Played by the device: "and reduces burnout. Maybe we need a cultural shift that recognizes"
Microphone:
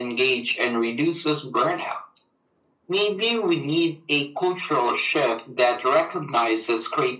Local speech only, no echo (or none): none